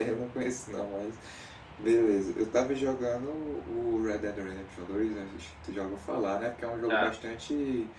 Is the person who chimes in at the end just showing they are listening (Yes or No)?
Yes